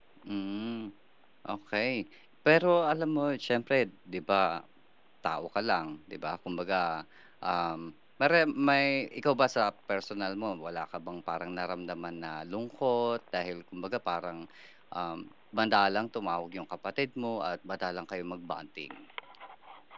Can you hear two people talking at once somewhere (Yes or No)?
No